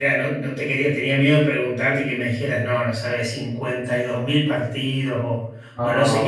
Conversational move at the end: listening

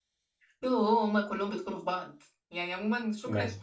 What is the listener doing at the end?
listening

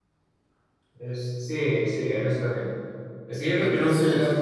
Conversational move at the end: listening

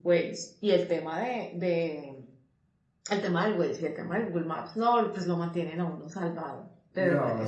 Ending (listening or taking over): taking over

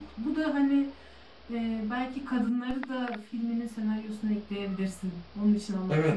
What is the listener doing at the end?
taking over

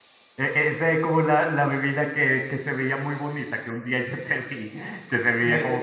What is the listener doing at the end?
listening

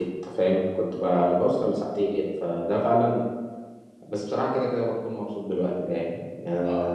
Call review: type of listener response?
taking over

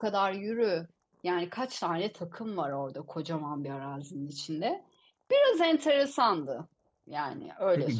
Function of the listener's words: taking over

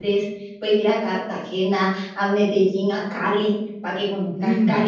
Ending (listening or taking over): listening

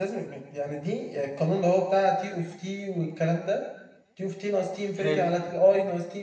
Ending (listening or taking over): listening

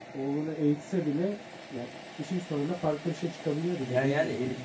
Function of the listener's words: taking over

